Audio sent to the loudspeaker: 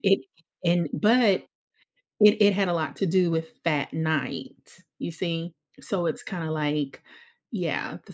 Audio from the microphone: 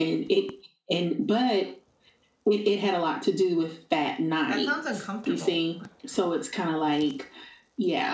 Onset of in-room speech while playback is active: 4 s

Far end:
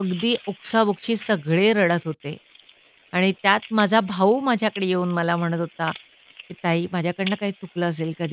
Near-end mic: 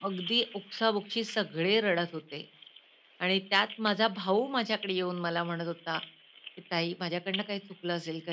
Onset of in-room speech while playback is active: none

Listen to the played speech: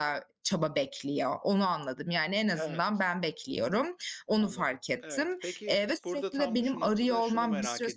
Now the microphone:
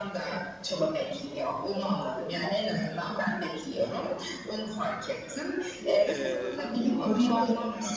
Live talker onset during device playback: 6 s

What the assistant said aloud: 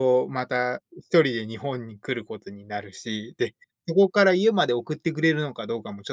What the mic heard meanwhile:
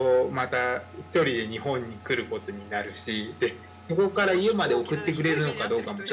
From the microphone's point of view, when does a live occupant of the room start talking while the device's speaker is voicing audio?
4 s

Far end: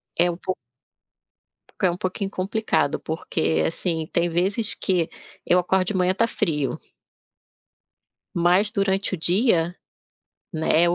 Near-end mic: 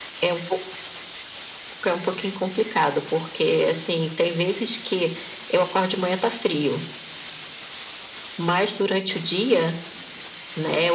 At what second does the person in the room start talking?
none

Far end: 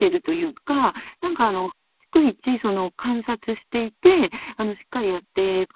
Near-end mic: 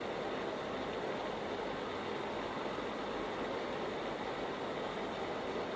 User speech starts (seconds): none

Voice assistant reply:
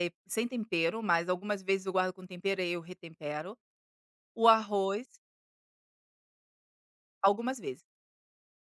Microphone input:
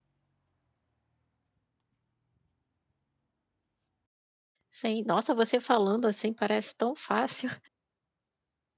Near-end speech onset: 5 s

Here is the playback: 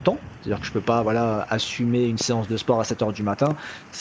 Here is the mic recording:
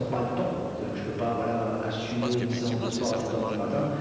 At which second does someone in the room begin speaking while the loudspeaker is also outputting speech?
2 s

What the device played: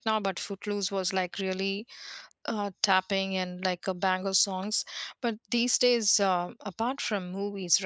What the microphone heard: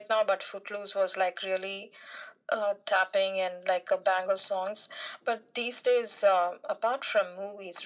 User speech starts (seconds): none

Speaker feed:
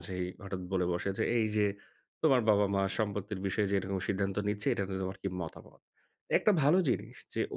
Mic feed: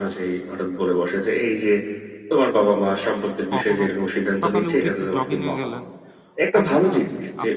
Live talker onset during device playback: 4 s

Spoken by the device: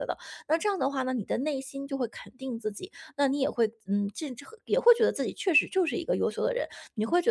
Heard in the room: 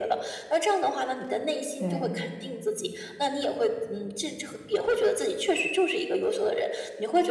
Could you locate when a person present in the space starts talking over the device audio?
2 s

